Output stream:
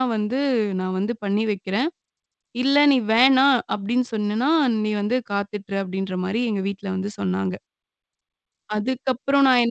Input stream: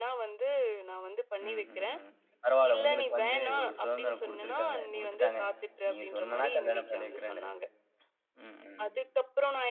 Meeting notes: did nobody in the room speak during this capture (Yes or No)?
No